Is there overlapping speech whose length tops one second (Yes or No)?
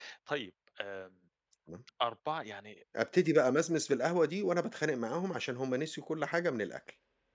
No